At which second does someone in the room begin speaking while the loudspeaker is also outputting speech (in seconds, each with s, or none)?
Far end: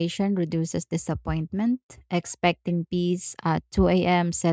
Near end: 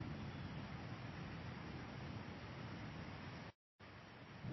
none